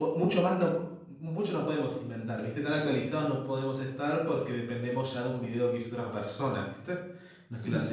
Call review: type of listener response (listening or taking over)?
listening